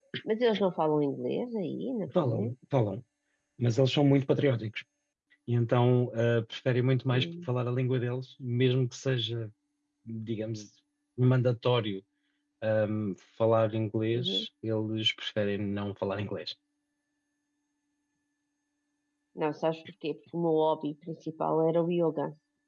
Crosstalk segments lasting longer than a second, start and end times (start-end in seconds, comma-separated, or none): none